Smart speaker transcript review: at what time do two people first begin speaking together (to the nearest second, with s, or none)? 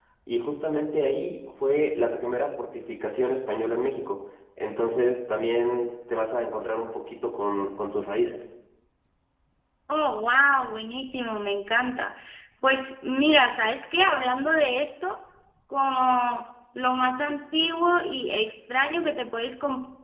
none